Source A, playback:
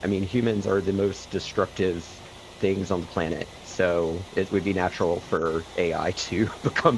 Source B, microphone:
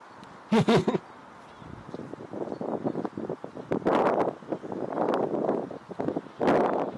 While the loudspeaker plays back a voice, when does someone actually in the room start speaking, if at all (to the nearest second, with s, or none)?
1 s